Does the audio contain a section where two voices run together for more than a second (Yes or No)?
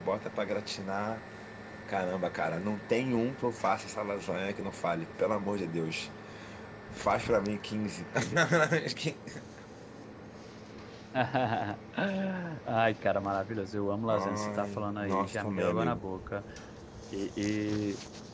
Yes